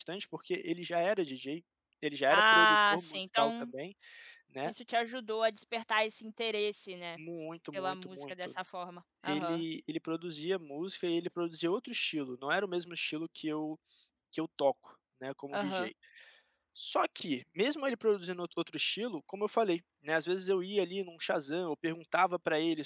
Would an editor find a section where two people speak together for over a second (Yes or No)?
Yes